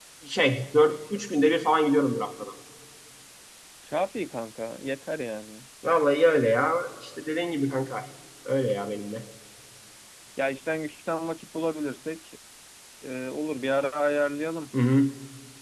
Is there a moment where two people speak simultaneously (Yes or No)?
No